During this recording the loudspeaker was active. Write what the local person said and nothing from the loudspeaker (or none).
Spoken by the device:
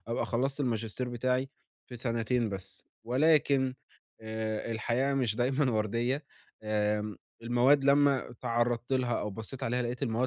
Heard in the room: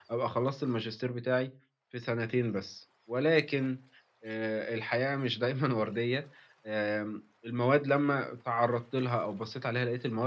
none